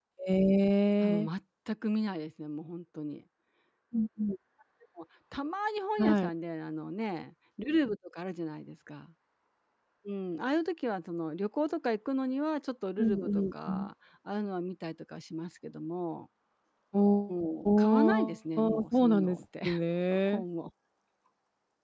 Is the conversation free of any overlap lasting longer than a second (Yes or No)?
No